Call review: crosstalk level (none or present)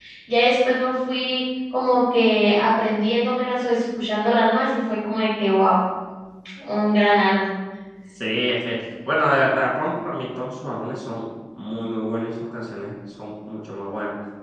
none